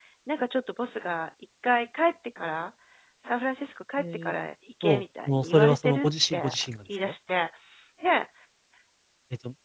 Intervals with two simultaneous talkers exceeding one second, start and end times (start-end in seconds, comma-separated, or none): 4.8-6.4